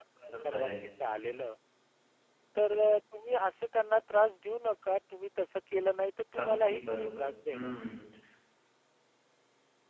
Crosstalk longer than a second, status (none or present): present